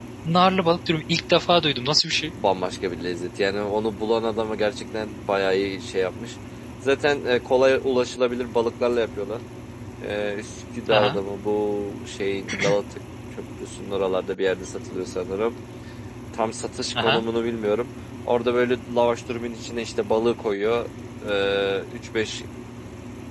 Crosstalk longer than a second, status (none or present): none